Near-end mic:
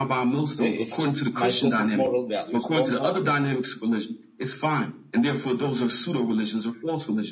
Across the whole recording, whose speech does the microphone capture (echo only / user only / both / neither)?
both